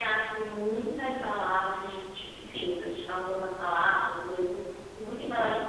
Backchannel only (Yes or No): Yes